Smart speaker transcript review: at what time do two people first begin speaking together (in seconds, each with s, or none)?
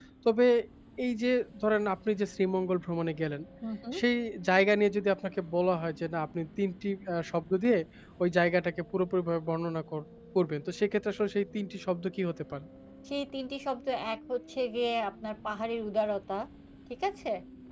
none